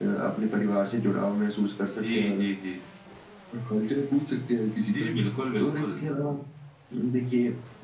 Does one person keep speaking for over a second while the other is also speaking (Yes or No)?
No